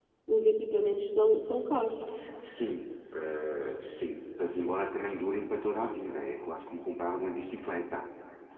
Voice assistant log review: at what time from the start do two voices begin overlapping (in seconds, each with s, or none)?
none